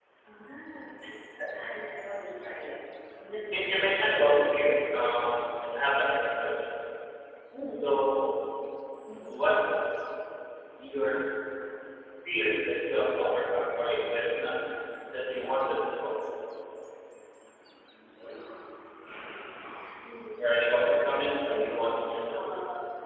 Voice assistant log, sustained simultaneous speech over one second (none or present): present